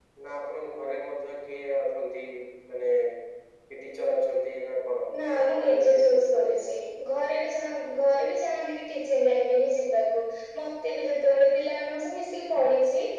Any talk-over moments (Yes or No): Yes